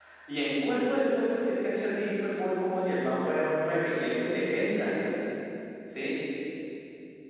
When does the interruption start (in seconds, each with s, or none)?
none